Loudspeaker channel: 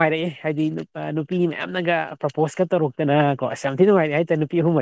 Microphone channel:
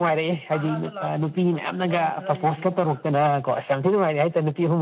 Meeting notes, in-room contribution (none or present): present